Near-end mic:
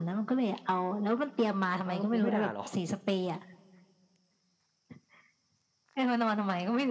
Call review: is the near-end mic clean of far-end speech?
No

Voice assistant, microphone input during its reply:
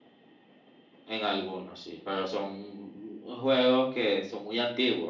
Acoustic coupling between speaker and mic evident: No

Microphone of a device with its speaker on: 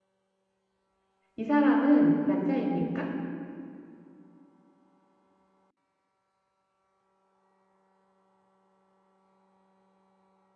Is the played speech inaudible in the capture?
Yes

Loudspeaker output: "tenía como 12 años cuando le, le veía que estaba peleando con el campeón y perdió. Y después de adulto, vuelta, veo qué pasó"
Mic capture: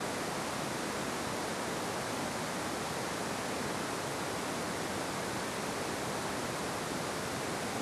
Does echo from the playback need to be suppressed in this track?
No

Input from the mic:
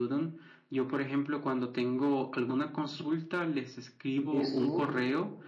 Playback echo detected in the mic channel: Yes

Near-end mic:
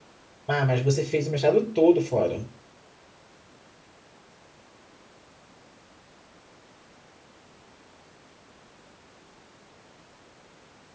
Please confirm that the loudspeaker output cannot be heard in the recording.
Yes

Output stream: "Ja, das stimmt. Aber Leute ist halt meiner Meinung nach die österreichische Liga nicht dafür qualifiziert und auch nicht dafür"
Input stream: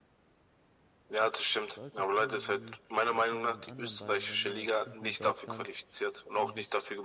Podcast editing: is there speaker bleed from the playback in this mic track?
Yes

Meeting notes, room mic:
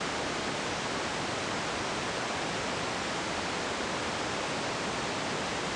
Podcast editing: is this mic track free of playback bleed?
Yes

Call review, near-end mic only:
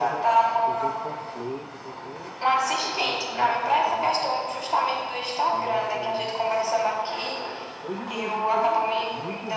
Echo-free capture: No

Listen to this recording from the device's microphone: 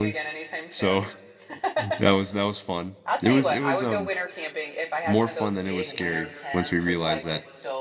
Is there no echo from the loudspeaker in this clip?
No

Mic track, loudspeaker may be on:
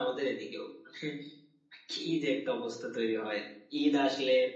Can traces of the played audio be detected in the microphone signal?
Yes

